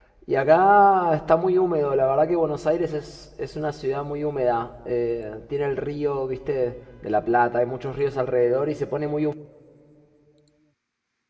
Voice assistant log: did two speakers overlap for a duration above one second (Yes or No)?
No